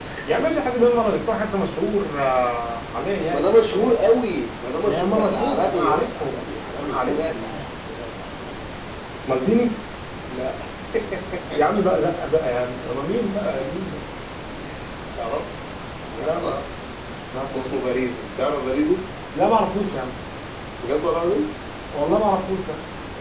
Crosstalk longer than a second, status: present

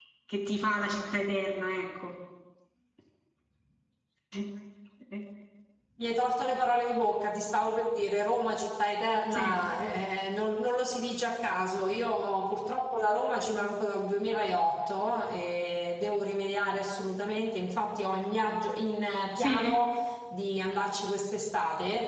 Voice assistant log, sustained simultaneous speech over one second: none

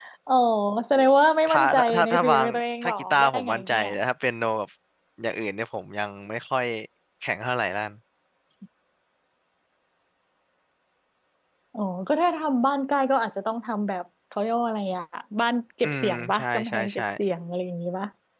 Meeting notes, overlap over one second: present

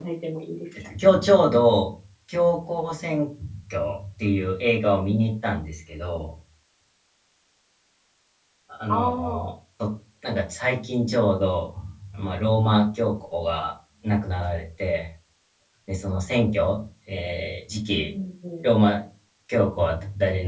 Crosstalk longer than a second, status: none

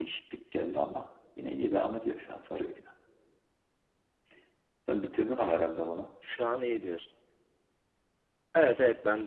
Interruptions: none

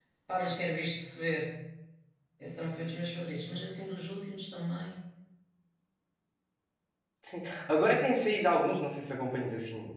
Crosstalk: none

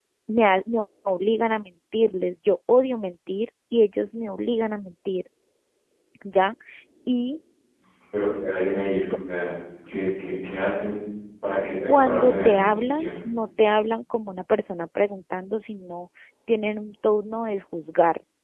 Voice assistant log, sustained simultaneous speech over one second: present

